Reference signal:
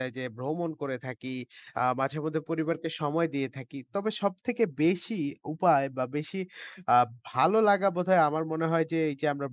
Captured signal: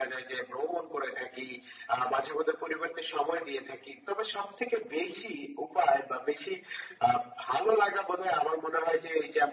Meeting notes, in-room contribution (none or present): none